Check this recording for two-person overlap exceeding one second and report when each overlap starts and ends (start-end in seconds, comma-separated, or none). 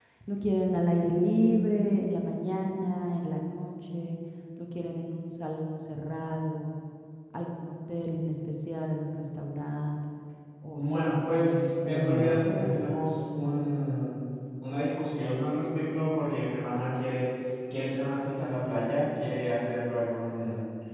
10.7-12.9